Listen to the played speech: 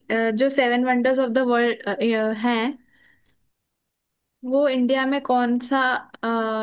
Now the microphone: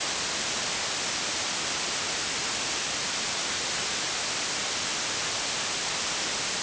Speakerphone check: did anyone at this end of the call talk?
No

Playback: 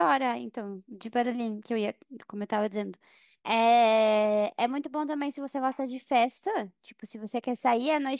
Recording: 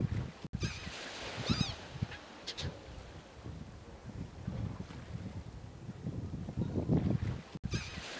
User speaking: No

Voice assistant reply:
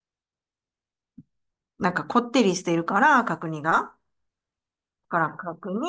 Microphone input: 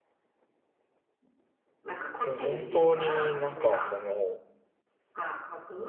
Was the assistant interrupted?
Yes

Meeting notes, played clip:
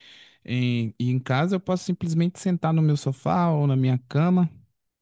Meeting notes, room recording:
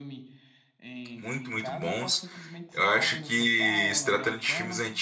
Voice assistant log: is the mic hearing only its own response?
No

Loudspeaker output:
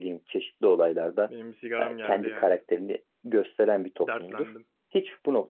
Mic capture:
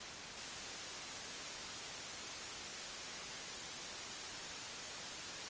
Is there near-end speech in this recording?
No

